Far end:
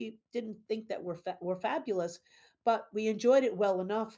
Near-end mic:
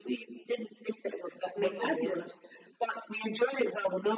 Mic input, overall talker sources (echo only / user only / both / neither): both